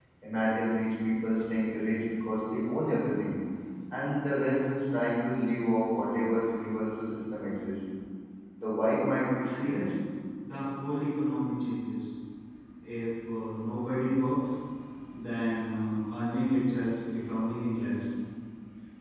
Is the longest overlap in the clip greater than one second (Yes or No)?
No